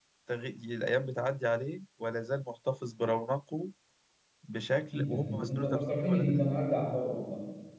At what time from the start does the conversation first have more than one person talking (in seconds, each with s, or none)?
4.9 s